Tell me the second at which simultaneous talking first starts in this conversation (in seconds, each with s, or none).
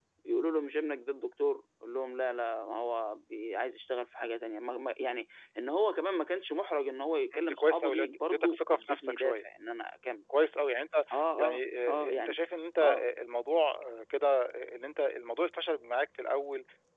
7.3 s